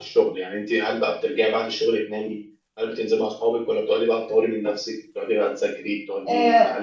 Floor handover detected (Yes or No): No